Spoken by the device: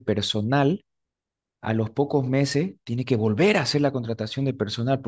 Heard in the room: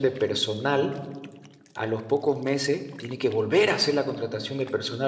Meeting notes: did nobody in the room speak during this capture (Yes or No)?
Yes